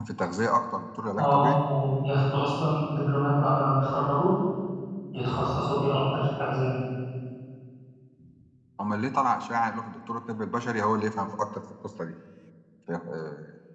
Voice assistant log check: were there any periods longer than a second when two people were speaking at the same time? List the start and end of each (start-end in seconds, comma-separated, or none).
none